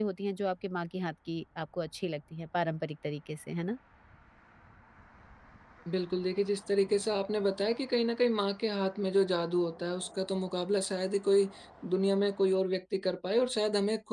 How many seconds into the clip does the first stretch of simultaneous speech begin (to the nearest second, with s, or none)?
none